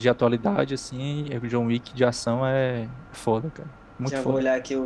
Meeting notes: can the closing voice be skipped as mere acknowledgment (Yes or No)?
No